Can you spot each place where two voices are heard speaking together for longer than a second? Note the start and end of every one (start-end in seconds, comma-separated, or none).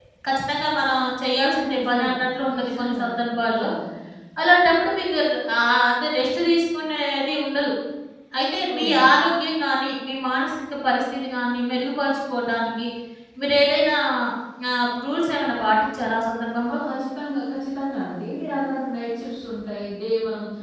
1.7-3.7